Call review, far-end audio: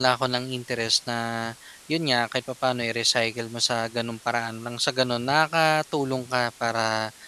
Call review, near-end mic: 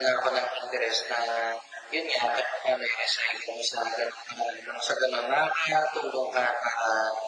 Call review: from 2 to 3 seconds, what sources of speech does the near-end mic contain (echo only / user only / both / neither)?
echo only